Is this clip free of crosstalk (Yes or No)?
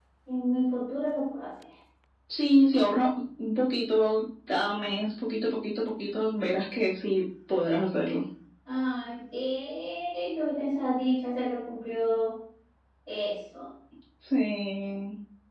Yes